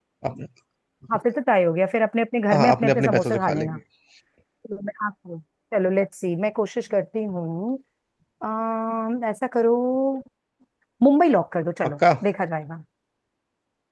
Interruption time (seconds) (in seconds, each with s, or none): 2.5 s